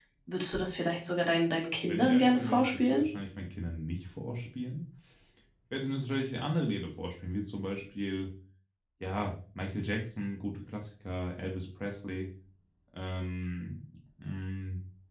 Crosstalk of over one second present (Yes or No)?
Yes